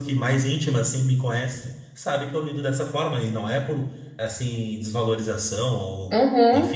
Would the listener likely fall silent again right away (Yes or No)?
Yes